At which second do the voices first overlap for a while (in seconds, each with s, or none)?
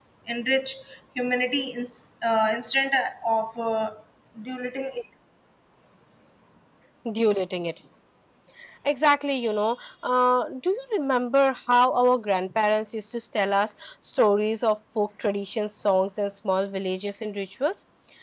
none